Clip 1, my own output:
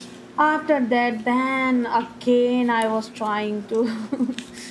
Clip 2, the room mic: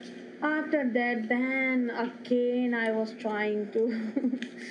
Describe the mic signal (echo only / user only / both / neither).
echo only